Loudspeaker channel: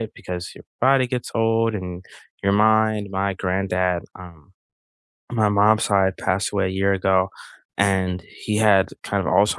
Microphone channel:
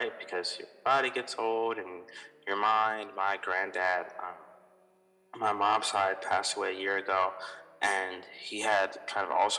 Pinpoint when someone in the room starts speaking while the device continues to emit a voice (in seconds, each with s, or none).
none